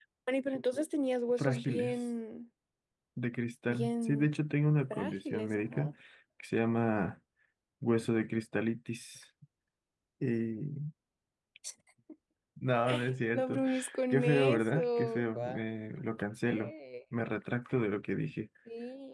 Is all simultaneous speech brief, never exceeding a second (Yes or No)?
No